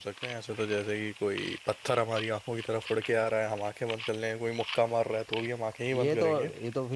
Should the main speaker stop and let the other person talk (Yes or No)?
Yes